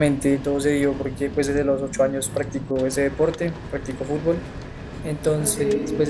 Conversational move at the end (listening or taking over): listening